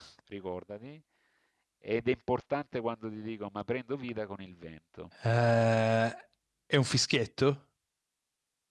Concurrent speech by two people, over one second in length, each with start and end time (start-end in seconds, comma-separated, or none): none